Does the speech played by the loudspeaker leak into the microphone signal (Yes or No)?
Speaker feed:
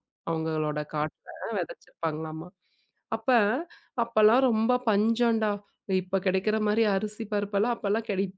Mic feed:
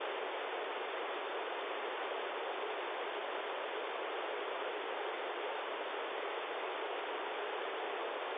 No